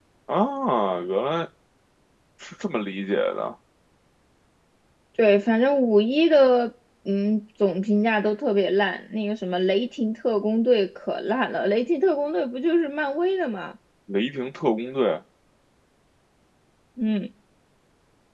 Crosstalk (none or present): none